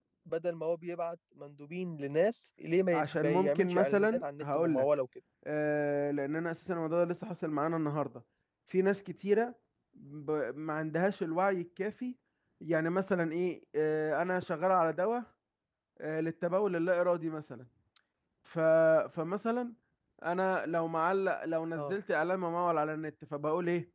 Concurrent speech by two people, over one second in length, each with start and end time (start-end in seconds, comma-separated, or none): 2.9-4.8